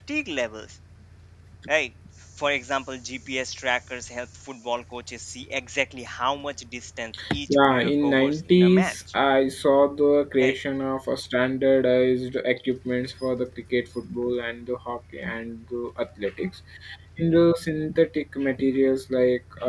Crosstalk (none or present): present